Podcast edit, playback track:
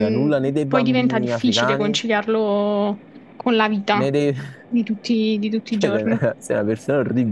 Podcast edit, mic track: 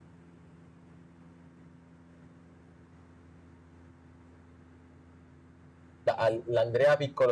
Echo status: none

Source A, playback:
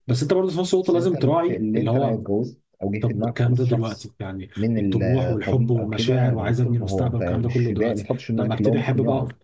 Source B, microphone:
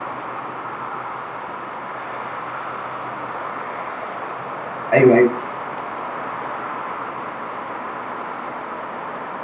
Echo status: none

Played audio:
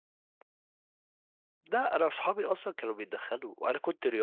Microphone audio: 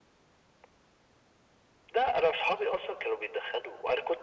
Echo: present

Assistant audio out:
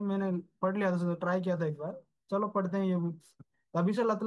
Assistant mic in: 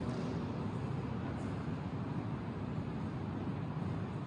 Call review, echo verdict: none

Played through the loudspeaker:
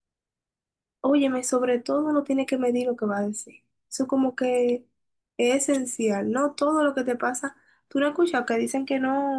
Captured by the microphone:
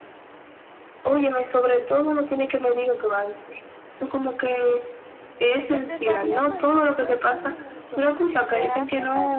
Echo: present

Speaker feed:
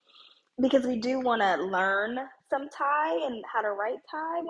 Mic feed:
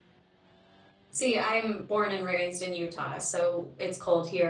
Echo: none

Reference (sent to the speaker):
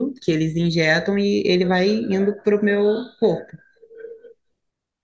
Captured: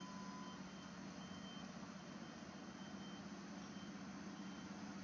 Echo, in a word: none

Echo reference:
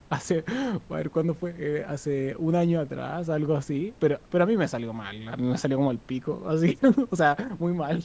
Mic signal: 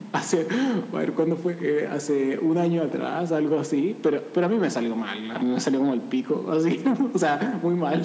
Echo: present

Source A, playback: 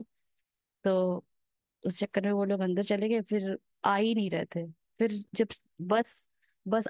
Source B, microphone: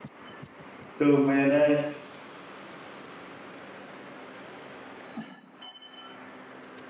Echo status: none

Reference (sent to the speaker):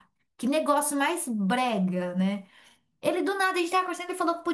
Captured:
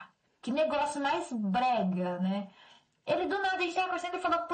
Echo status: present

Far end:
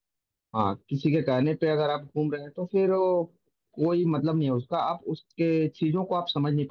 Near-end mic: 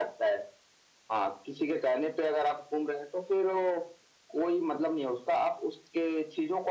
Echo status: present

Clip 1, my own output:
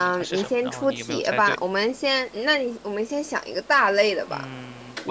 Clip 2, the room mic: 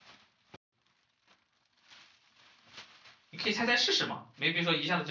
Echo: none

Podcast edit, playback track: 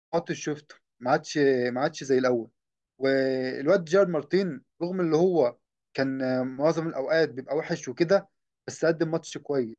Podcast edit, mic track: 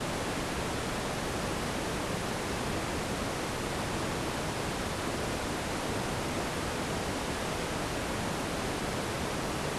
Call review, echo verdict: none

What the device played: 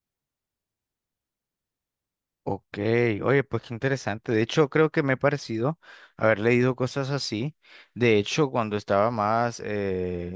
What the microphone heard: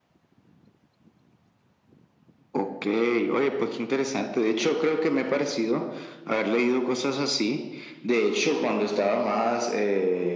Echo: present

